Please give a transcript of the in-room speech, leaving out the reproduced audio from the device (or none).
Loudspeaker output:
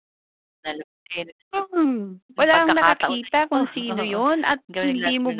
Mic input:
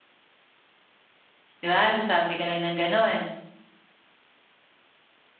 'Di ba, sasabi ka lang ng gano'n.